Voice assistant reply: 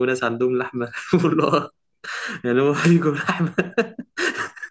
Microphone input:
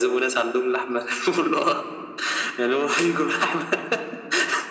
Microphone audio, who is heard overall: echo only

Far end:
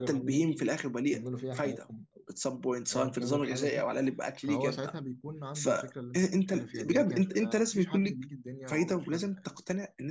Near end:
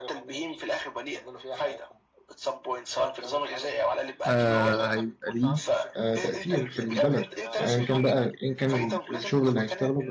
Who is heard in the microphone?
both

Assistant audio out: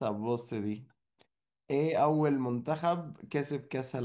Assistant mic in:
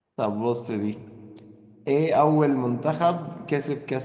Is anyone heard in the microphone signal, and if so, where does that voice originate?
echo only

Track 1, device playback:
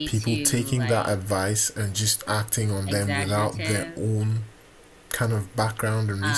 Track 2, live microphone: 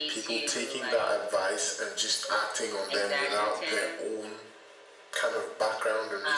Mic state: echo only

